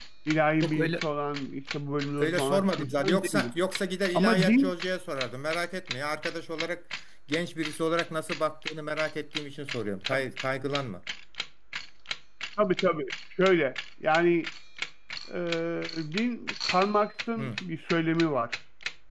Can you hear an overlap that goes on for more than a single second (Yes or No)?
Yes